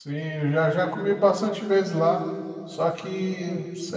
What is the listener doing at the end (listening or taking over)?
listening